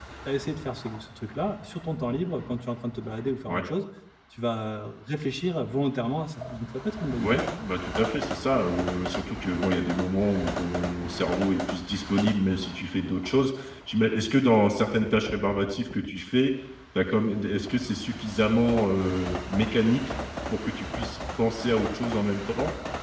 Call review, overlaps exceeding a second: none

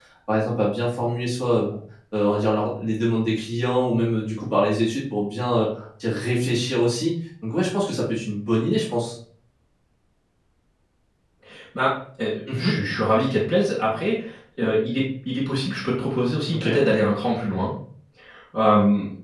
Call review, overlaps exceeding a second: none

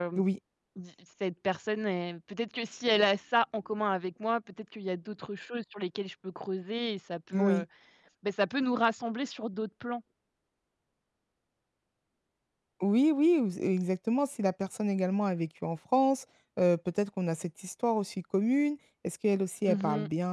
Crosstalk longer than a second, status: none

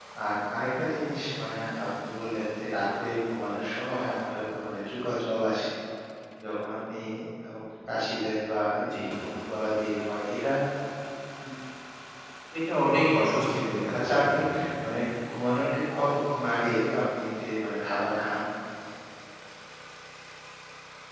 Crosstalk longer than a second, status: present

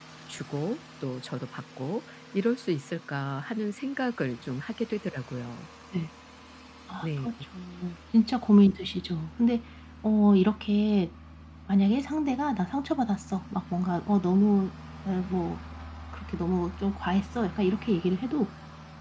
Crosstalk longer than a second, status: none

